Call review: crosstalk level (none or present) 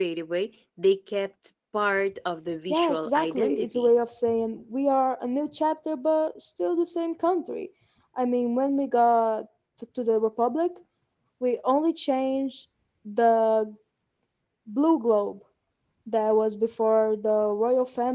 present